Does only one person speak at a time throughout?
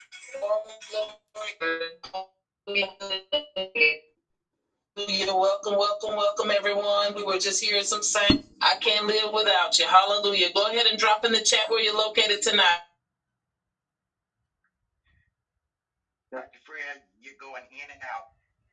Yes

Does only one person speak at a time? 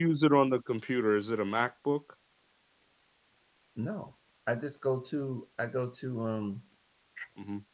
Yes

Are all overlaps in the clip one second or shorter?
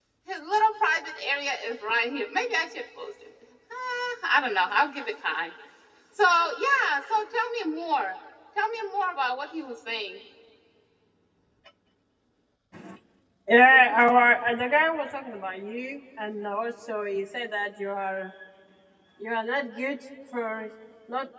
Yes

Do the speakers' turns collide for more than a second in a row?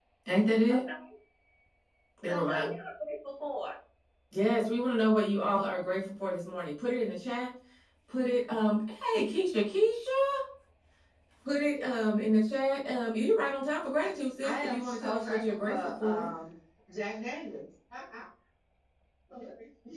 Yes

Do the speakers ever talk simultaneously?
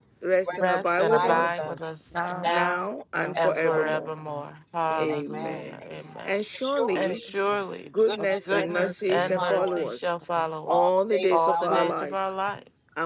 Yes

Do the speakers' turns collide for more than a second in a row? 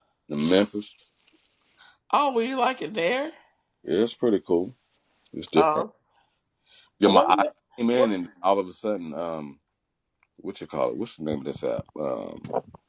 No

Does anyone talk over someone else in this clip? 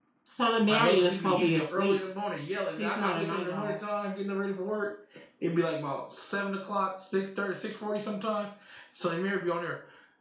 Yes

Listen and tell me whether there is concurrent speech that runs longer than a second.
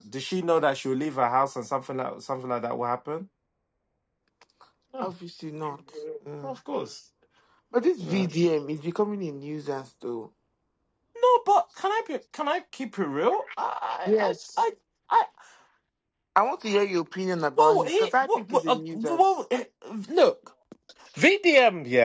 Yes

